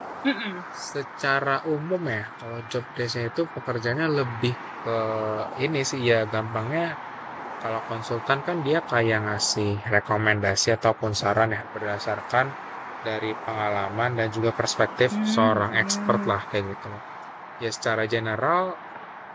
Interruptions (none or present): present